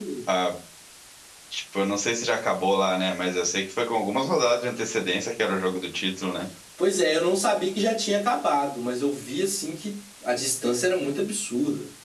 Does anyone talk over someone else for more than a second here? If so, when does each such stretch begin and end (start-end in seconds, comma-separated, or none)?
none